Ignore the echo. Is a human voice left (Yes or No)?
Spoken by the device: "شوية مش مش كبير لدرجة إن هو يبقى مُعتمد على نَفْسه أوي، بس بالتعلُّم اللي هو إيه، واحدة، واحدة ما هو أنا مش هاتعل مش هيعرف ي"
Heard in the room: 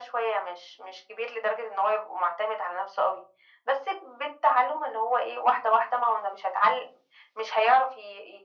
No